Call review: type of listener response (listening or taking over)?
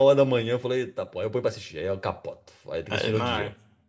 taking over